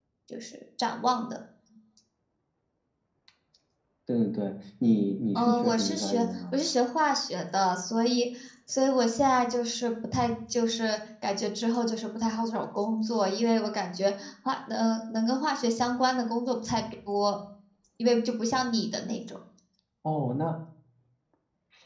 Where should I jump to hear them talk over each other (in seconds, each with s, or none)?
5.3 s